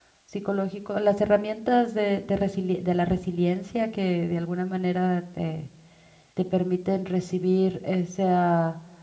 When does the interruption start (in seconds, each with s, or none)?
none